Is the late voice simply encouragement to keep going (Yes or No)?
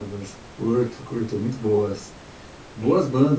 Yes